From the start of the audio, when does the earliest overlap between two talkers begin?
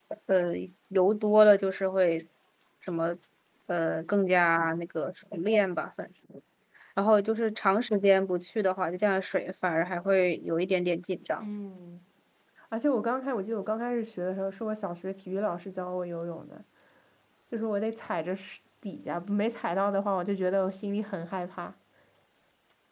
none

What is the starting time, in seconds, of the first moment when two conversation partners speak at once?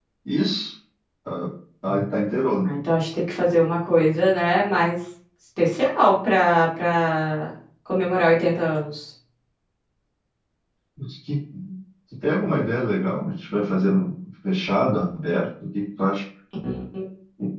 none

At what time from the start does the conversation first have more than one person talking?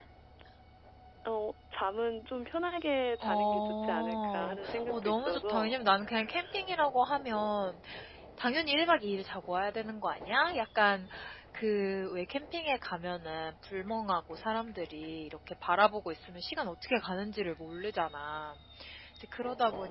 3 s

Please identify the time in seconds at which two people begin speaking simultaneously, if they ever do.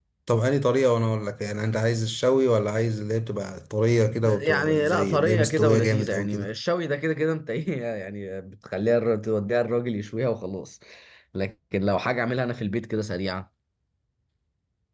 4 s

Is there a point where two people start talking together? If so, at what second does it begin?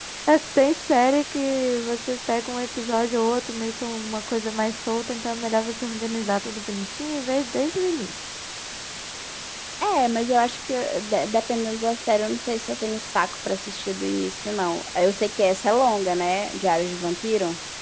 none

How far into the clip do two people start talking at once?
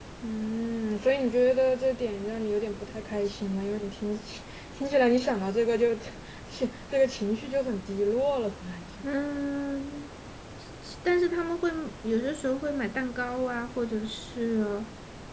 none

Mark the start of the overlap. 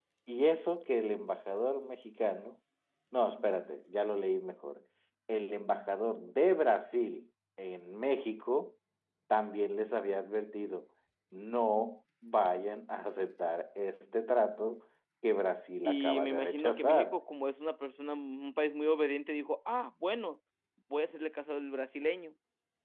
16 s

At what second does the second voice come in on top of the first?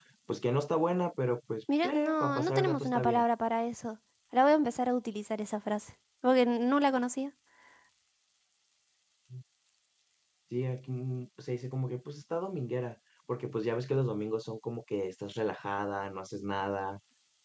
2 s

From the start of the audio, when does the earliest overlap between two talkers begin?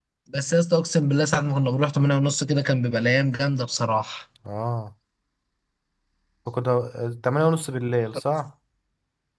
none

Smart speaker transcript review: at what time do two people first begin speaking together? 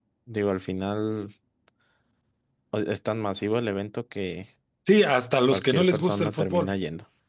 6 s

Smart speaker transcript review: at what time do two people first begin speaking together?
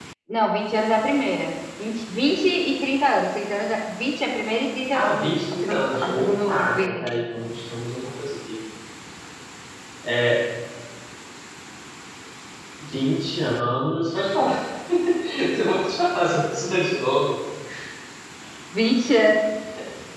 5 s

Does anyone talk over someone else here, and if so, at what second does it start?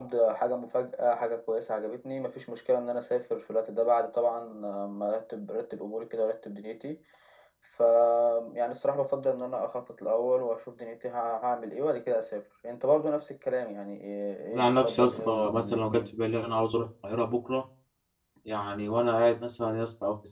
15 s

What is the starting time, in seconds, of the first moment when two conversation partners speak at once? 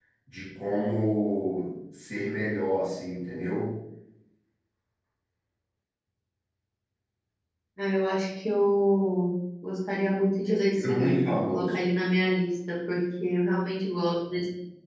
10 s

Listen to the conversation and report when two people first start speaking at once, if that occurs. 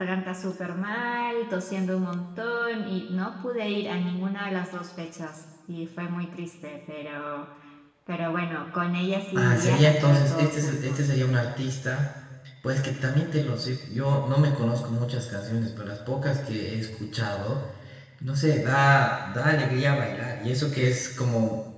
9 s

